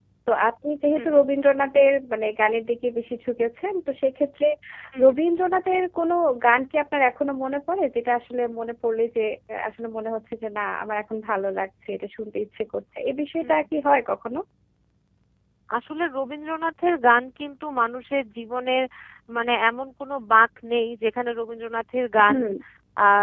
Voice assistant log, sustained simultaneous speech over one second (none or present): none